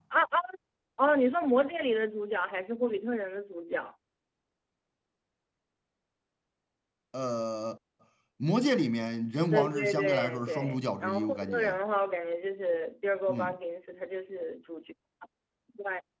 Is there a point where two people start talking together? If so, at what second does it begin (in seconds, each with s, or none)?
9.5 s